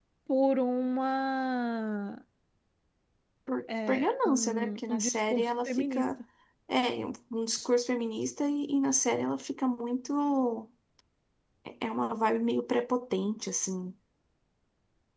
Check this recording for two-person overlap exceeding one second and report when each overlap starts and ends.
3.9-6.0

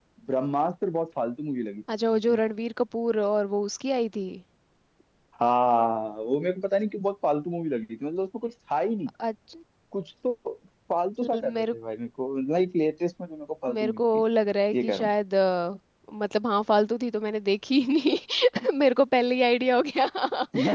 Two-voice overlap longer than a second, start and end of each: none

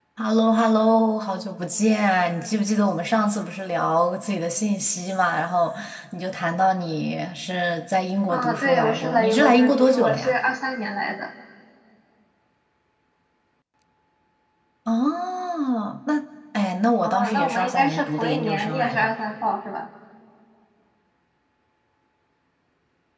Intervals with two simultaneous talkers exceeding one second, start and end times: 8.3-10.3, 17.0-19.1

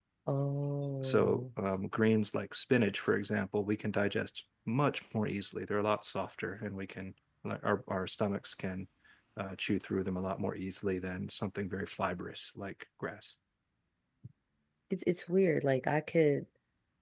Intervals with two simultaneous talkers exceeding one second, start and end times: none

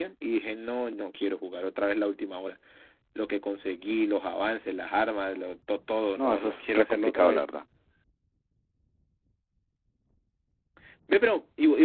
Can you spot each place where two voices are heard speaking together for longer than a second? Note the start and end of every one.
6.2-7.4

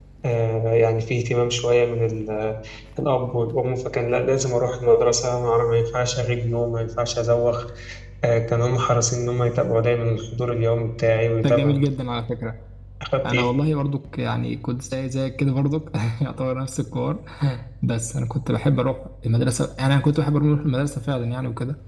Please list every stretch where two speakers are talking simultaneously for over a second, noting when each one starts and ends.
none

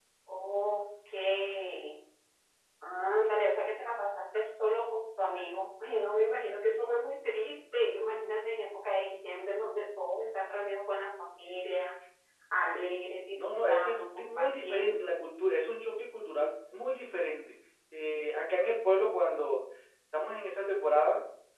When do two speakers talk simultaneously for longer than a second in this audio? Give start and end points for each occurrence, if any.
13.3-15.1

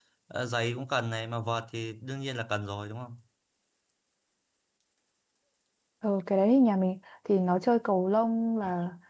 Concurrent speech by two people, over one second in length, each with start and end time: none

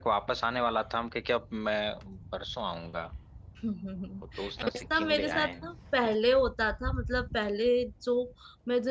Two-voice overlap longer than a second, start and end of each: 4.4-5.7

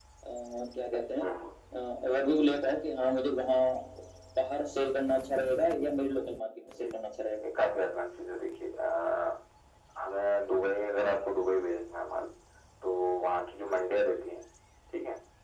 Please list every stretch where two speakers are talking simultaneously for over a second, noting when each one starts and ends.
none

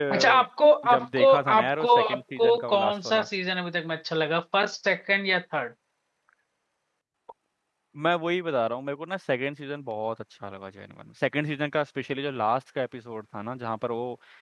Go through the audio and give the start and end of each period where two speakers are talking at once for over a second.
0.9-3.3

